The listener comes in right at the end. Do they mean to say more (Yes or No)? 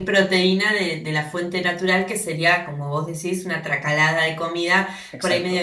No